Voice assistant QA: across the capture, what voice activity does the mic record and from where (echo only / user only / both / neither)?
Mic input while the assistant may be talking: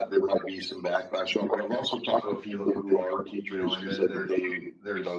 both